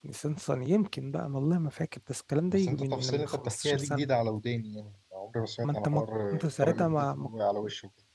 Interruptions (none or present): present